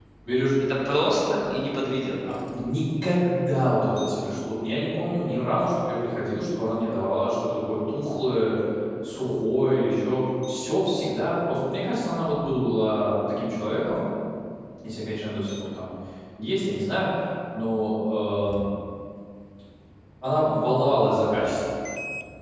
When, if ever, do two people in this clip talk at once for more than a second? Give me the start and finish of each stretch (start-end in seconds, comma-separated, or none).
none